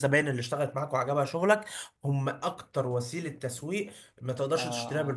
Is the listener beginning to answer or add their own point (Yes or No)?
Yes